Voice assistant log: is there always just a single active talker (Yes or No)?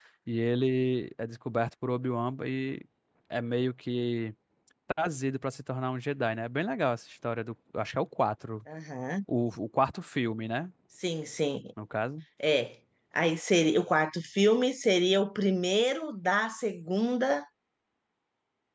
Yes